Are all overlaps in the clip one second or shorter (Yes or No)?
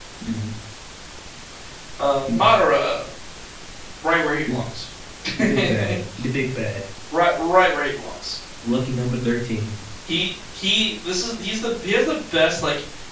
Yes